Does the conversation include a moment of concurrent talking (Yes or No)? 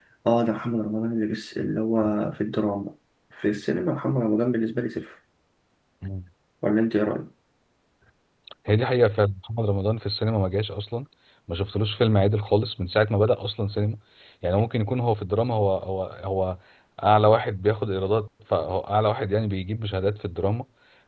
No